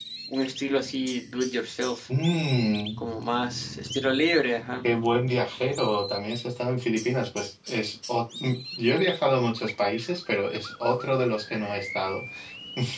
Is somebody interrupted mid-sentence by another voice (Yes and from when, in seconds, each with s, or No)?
No